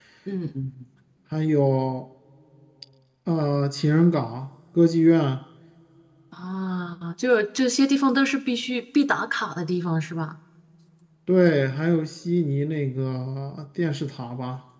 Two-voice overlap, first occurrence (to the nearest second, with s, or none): none